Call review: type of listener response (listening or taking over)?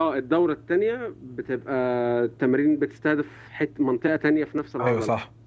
taking over